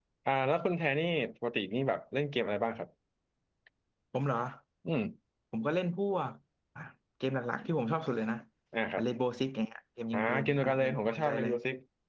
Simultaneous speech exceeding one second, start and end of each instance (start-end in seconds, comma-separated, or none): 10.1-11.5